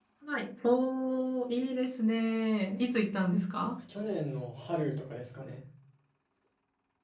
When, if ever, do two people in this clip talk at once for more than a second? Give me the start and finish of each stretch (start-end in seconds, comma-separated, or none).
none